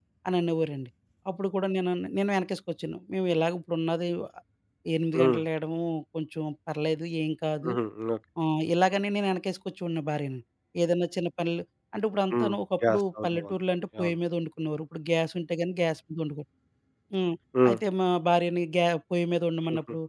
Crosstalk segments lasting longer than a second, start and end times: 12.3-13.6

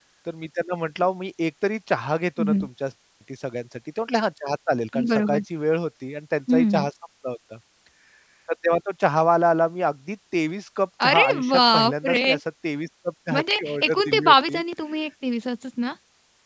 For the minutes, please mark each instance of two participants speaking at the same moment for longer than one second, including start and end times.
11.1-12.3, 13.3-14.6

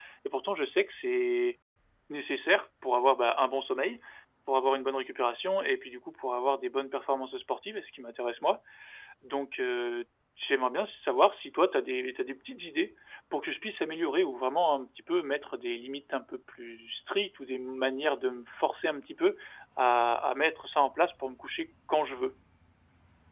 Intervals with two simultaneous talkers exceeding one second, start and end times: none

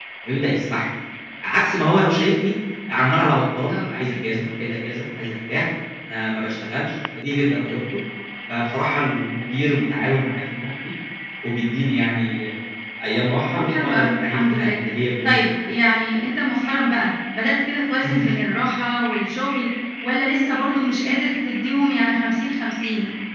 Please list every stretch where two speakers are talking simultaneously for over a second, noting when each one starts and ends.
13.5-14.8

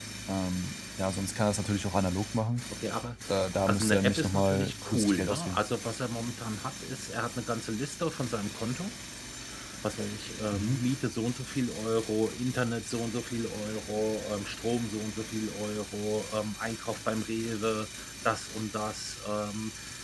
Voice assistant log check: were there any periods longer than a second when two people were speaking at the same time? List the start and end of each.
3.6-5.6

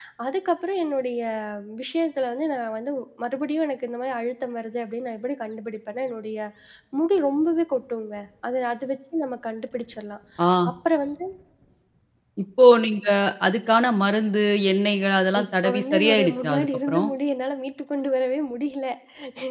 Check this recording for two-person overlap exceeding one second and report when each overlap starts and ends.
15.4-17.1

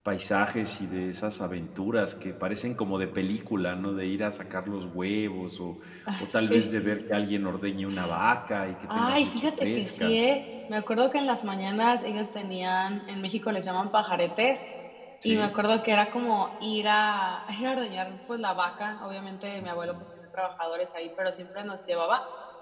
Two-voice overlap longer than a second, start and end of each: 8.9-10.2

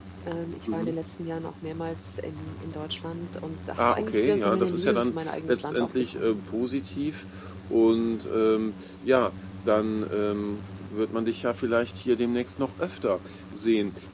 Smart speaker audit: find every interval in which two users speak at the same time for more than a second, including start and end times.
3.8-6.4

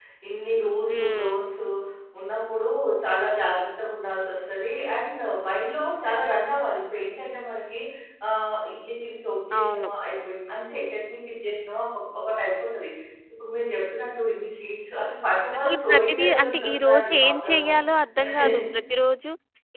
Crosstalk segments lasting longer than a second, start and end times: 15.7-17.7

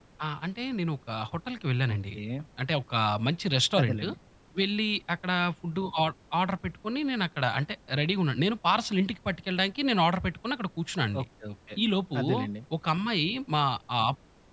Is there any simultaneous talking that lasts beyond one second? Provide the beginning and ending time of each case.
none

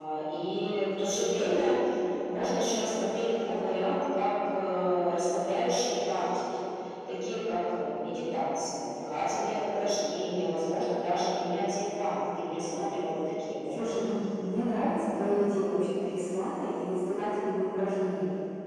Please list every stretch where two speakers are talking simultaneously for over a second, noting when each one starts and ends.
none

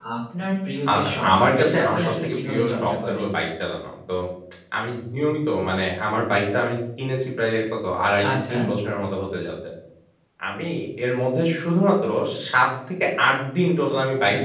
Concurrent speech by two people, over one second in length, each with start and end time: 0.9-3.2

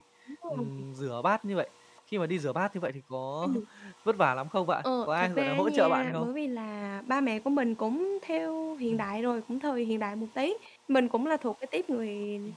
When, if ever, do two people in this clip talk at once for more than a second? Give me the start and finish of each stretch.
5.1-6.3

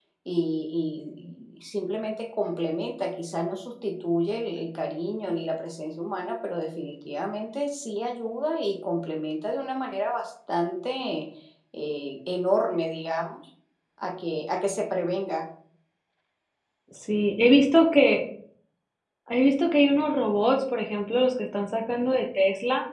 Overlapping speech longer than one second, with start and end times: none

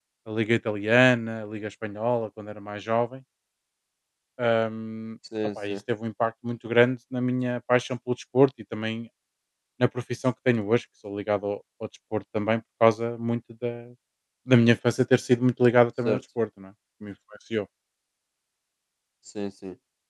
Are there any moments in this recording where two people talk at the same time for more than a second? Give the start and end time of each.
none

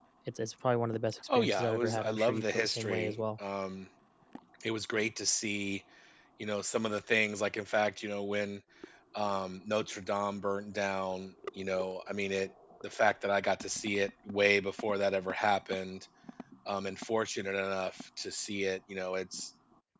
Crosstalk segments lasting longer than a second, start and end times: 1.4-3.1

